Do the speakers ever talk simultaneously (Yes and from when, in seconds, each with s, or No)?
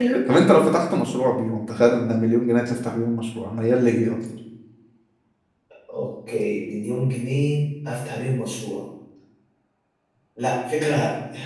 No